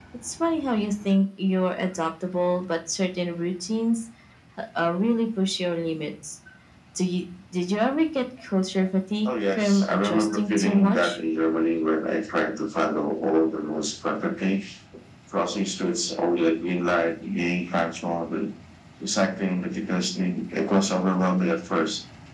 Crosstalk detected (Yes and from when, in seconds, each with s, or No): Yes, from 9.2 s